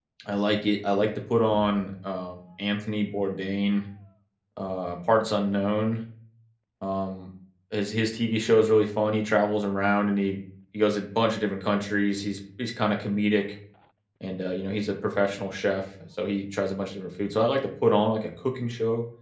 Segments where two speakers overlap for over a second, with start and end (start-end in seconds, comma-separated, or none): none